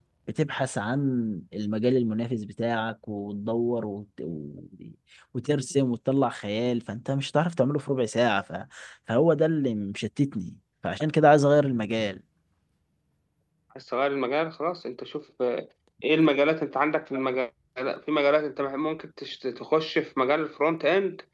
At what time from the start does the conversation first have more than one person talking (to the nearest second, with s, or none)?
none